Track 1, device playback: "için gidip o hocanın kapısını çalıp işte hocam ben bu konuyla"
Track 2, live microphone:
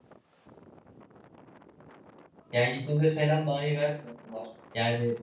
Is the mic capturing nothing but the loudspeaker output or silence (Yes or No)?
No